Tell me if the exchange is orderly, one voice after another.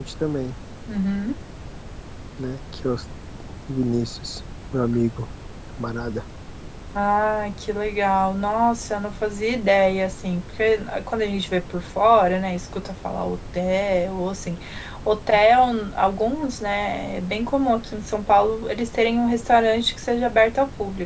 Yes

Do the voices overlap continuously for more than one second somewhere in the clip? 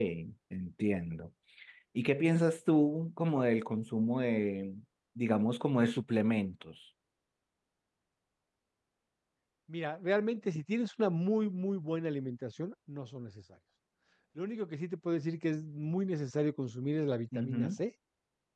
No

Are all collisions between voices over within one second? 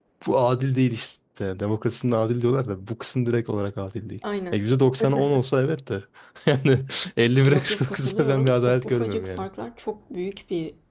No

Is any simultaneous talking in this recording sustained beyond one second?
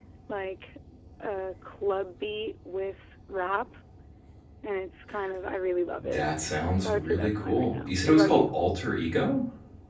Yes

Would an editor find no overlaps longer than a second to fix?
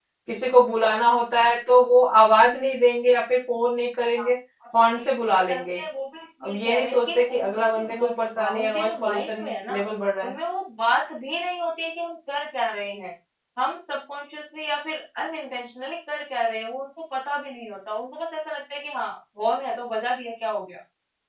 No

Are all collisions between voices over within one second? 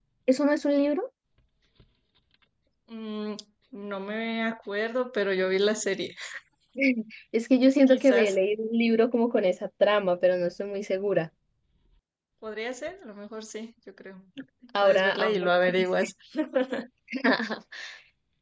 No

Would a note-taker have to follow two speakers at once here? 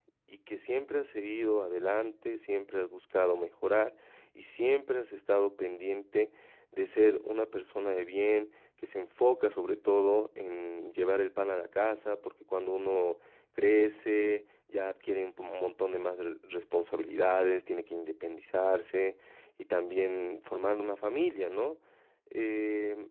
No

